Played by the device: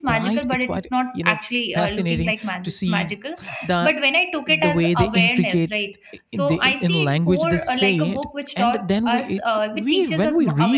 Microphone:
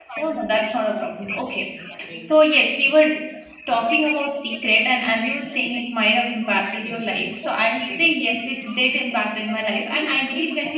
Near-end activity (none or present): present